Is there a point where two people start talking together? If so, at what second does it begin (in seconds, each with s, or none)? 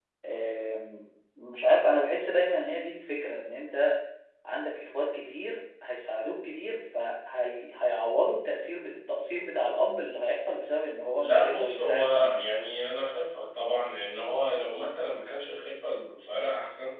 11.2 s